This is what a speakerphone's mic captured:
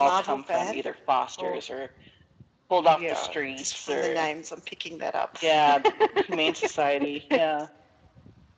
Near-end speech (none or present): none